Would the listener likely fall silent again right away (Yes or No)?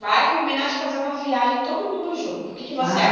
No